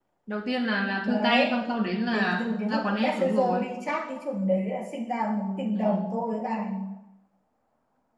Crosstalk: present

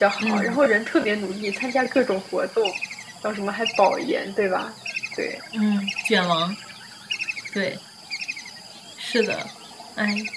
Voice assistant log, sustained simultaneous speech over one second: none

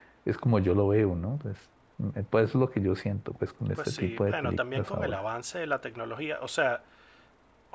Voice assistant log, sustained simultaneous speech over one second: present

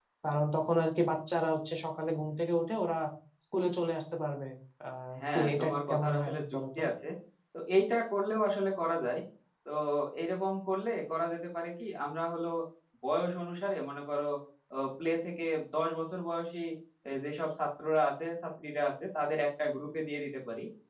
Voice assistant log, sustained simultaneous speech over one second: present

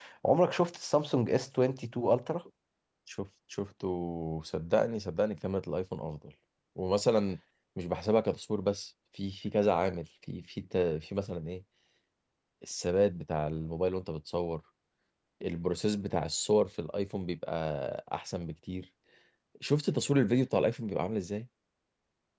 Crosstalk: none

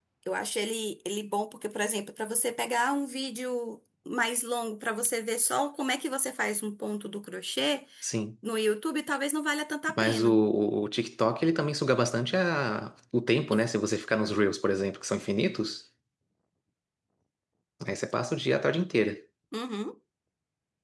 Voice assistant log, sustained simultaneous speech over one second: none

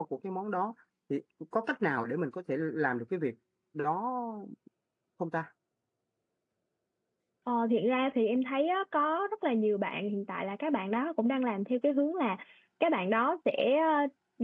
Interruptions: none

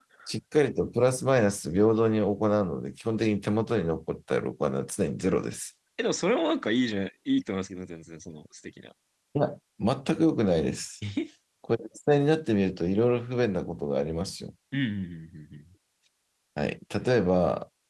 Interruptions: none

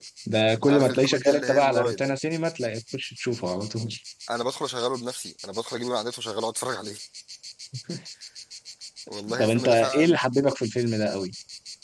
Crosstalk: present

